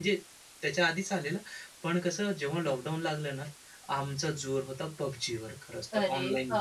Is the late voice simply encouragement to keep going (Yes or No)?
No